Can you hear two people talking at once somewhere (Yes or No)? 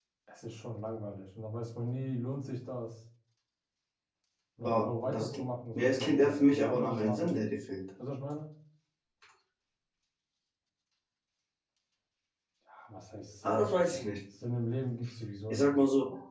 Yes